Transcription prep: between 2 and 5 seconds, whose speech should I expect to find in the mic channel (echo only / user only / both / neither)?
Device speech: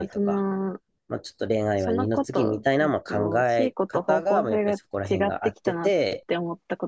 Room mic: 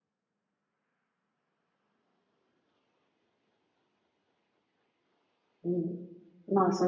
neither